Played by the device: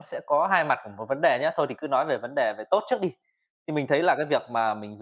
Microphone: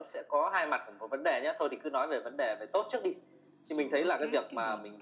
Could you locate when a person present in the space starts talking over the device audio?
3.6 s

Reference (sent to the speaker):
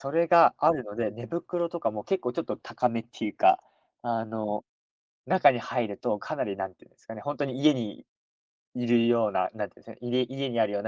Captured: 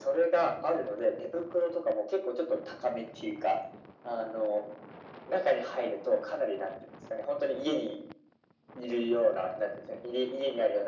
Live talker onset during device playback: none

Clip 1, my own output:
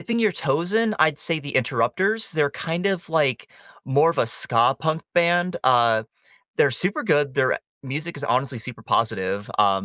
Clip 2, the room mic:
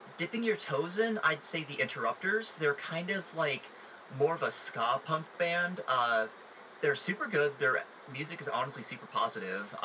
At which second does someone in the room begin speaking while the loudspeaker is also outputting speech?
none

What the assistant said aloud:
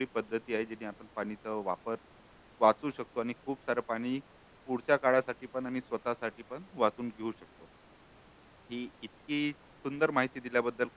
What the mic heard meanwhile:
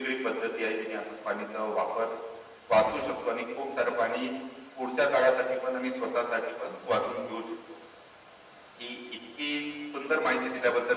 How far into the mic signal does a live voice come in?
none

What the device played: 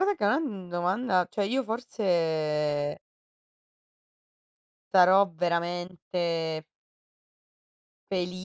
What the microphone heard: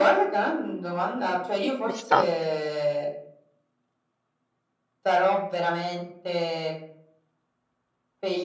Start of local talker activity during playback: 1.6 s

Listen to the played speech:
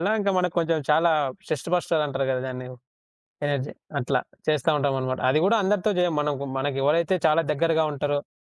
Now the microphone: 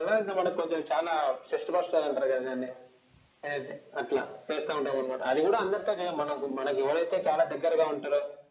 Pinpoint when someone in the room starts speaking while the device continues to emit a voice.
none

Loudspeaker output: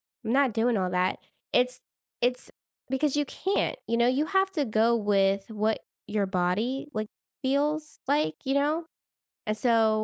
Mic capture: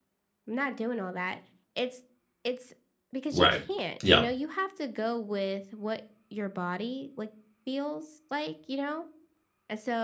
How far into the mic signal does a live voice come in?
3.3 s

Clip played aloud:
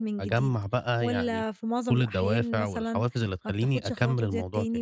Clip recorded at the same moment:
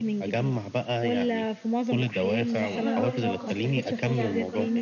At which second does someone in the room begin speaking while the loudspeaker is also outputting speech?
2.4 s

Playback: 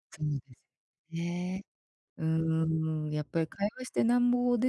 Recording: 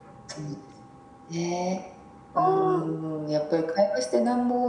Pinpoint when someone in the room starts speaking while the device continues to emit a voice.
2.3 s

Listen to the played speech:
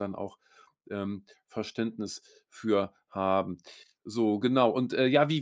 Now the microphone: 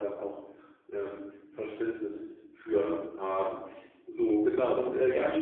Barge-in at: none

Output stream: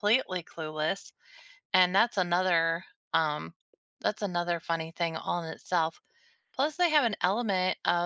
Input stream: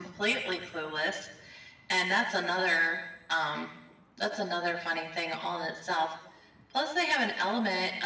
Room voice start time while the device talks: none

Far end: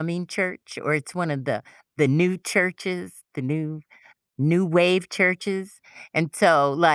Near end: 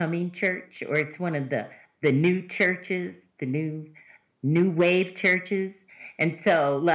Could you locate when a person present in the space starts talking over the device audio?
none

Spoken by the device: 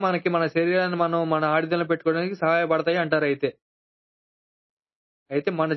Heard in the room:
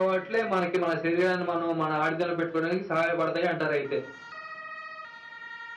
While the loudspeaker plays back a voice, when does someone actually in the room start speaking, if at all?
none

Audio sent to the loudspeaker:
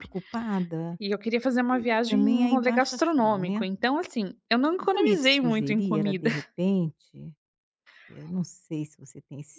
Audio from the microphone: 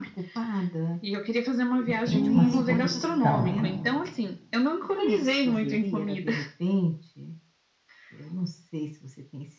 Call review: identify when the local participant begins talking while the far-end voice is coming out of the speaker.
1.8 s

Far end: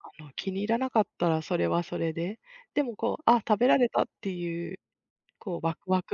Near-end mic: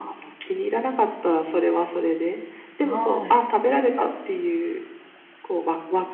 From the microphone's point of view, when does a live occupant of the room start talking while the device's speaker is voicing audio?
2.8 s

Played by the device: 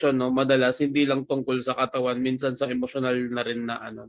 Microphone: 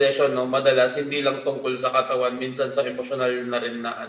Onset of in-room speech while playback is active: none

